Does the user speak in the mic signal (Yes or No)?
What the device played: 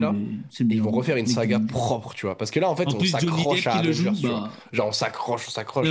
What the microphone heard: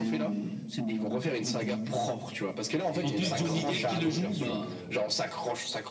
Yes